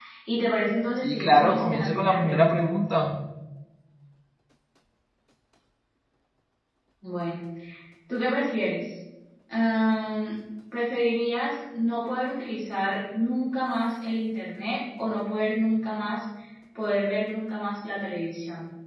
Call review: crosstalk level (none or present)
present